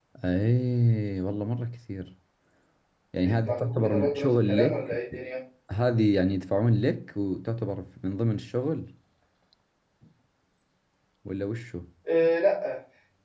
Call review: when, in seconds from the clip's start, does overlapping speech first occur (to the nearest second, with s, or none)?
3 s